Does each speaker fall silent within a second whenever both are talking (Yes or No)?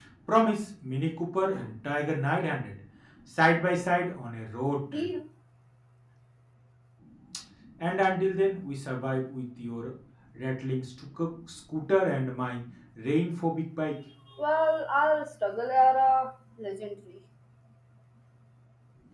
Yes